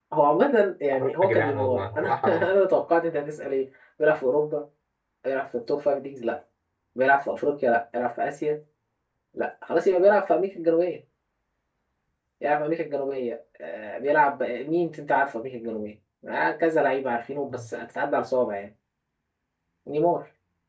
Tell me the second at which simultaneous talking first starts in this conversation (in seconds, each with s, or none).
0.9 s